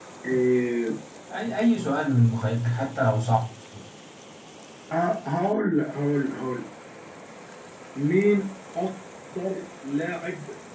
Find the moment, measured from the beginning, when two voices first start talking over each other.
none

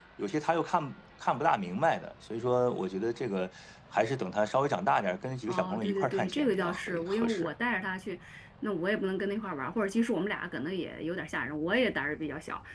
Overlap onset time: 5.5 s

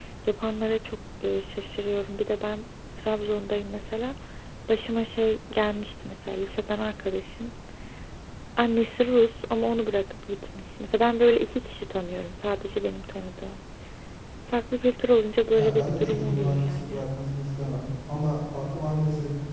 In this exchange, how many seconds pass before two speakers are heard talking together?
15.5 s

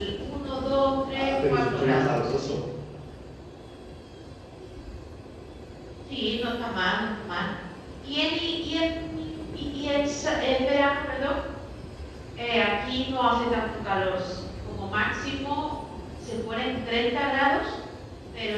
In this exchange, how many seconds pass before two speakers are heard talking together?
1.1 s

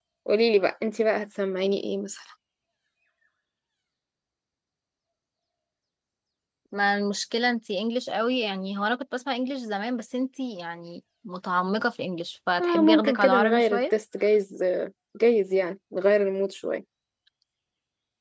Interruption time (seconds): 12.6 s

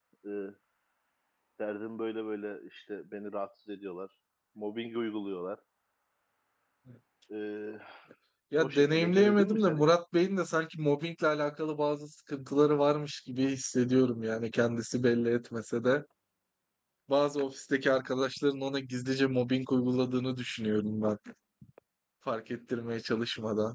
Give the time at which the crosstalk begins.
8.6 s

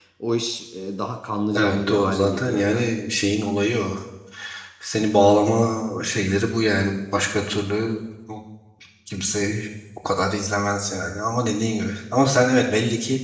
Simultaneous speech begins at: 1.5 s

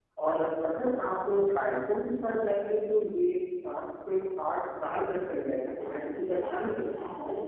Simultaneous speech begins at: 5.6 s

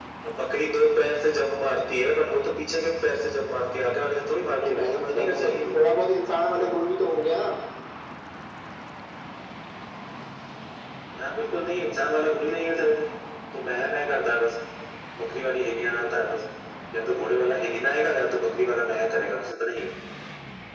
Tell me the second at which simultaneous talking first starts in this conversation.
4.5 s

